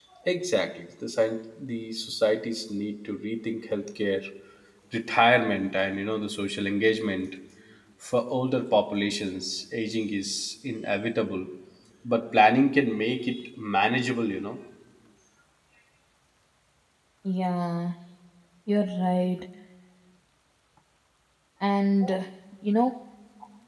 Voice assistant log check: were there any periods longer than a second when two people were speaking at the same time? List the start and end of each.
none

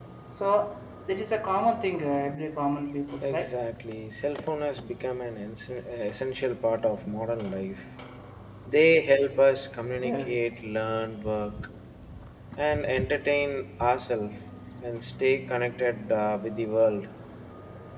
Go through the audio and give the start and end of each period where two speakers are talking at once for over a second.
none

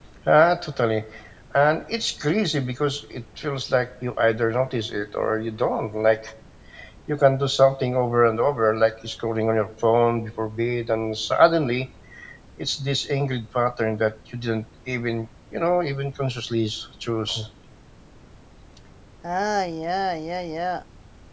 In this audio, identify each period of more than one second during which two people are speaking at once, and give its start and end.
none

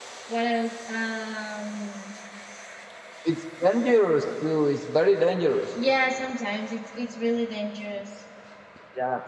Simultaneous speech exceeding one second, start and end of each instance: none

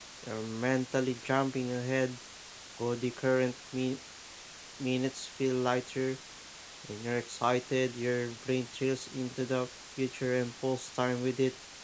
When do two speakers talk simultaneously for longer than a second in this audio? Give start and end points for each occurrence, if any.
none

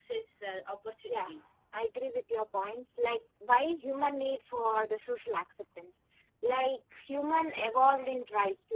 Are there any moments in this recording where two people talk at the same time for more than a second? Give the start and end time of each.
none

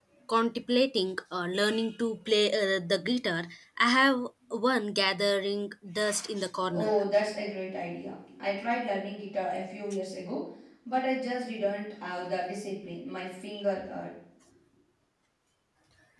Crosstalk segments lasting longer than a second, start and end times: none

